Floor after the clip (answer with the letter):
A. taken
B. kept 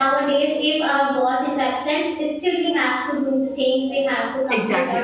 B